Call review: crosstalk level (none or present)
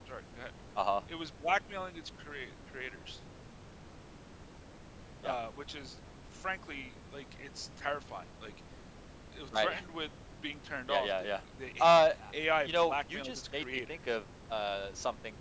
present